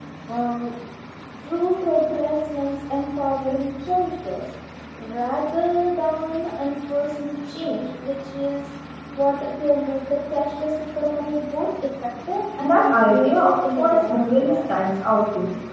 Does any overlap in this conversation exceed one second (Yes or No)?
Yes